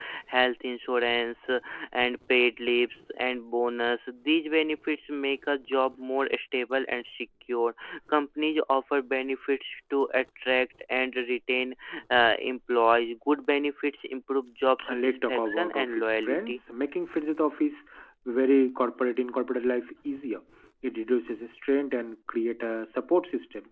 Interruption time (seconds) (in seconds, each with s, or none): 14.8 s